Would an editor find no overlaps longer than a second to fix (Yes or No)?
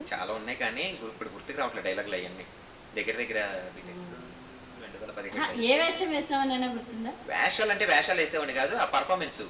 Yes